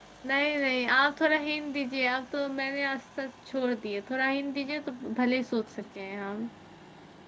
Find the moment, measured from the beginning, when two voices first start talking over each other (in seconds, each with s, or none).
none